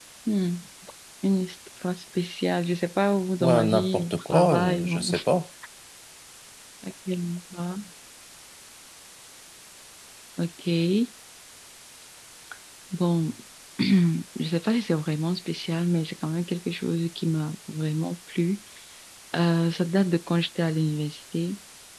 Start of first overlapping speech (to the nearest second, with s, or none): 3 s